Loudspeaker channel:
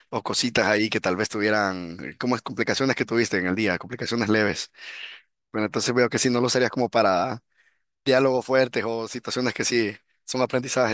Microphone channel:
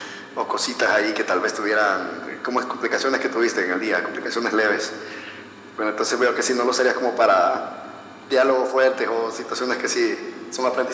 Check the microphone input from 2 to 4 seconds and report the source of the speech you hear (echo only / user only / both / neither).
echo only